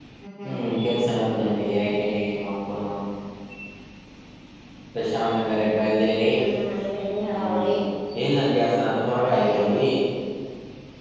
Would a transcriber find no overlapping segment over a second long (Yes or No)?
Yes